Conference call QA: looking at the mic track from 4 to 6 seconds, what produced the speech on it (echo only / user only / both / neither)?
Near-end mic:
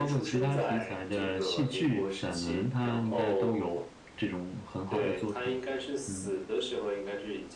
both